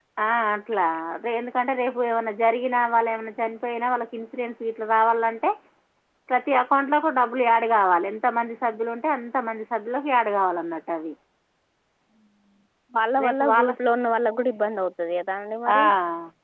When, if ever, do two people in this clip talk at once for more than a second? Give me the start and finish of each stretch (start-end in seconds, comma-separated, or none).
none